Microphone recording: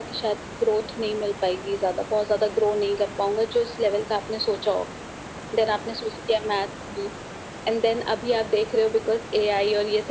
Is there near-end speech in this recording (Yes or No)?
No